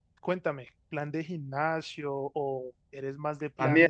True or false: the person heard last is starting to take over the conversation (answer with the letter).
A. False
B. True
B